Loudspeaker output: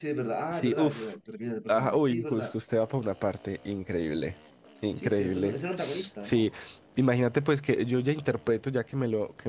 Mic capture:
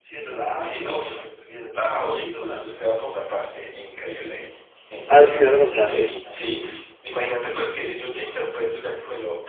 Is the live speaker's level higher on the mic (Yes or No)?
Yes